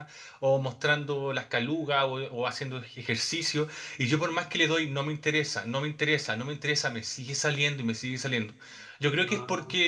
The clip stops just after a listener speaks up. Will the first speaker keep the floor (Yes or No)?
Yes